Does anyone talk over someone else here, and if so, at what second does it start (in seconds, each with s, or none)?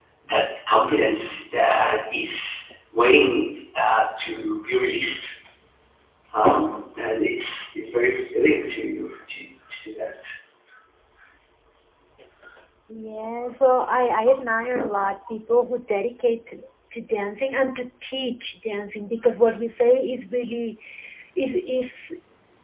none